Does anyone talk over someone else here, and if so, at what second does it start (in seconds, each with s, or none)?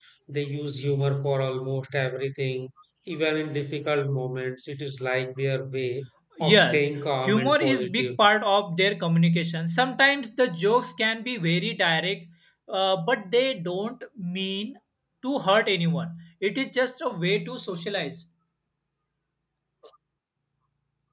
6.4 s